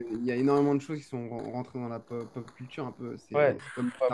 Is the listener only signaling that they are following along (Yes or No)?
No